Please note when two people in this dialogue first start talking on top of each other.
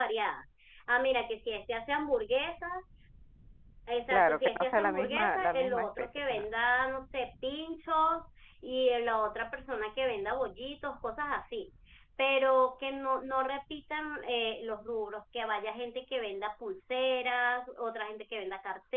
4.1 s

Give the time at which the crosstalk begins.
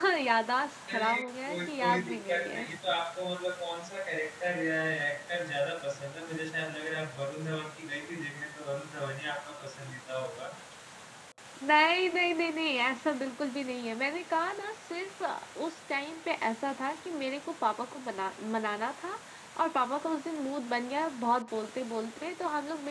0.9 s

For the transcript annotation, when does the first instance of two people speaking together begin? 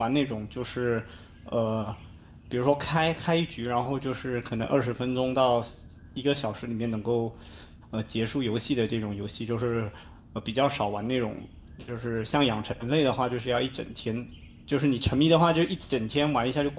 none

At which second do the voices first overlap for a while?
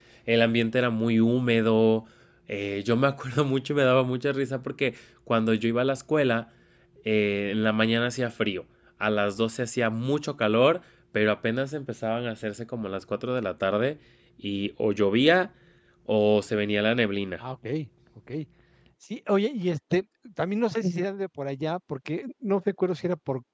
none

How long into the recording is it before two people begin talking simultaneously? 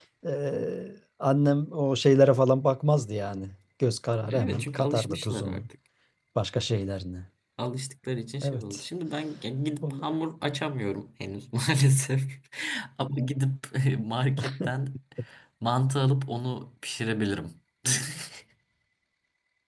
4.3 s

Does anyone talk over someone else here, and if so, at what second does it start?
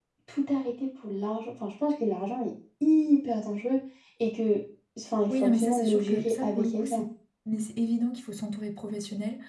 5.3 s

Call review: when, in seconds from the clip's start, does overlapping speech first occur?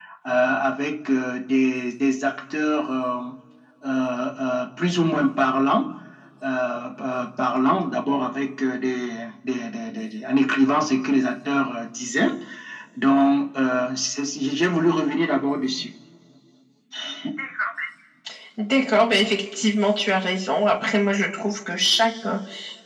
none

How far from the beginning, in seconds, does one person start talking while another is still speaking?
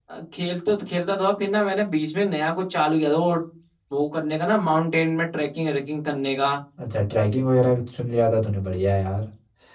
none

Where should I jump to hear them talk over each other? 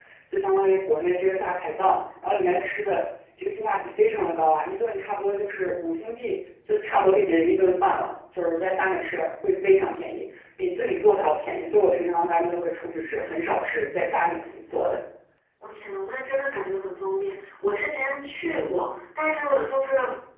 none

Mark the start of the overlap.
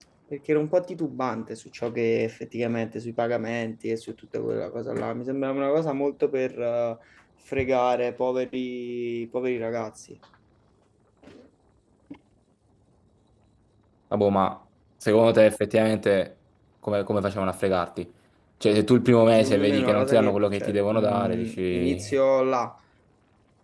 19.3 s

